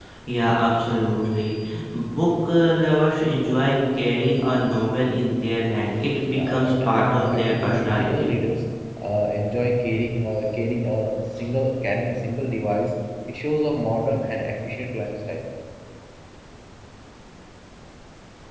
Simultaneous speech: Yes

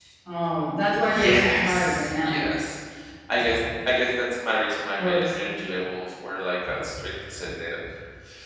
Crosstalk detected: Yes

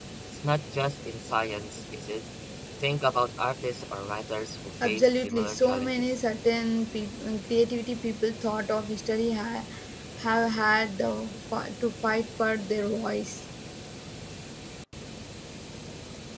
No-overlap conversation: No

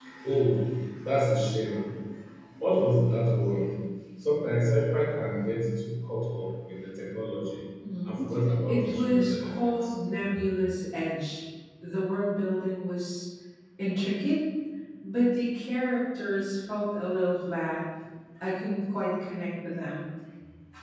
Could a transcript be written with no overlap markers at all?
No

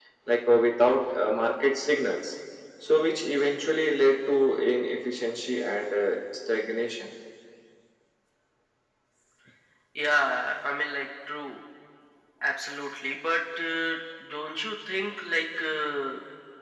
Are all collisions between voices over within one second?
Yes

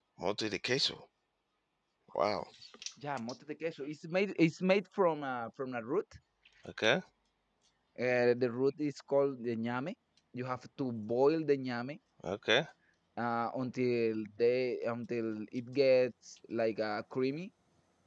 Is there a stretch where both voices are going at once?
No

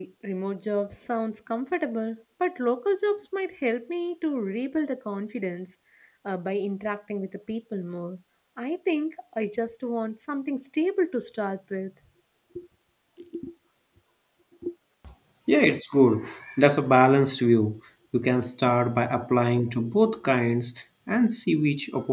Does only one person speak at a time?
Yes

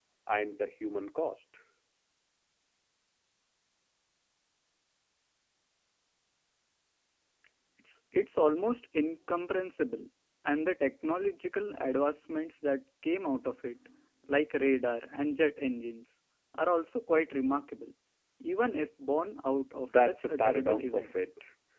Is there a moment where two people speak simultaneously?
Yes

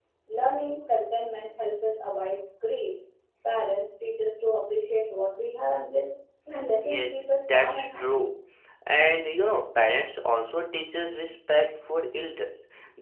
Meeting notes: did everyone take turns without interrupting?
No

